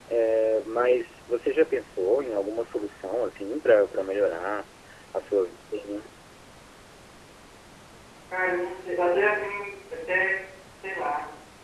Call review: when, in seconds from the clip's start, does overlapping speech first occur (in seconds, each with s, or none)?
none